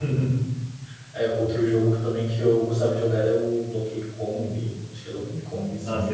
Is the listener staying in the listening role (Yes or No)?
No